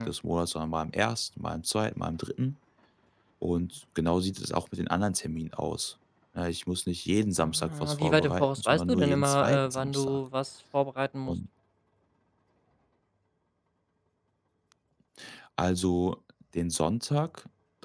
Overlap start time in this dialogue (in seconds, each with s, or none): 7.4 s